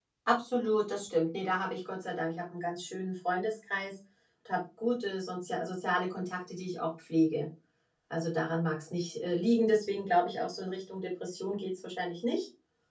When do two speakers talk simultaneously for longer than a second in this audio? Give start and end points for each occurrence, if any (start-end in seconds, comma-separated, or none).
none